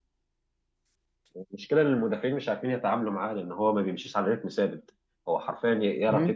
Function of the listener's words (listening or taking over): listening